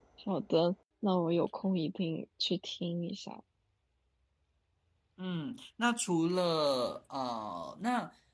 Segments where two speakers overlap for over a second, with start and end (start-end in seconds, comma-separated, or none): none